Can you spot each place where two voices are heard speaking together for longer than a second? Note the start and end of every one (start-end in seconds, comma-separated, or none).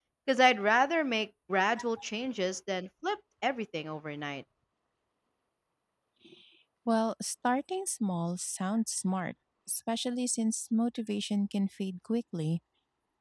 none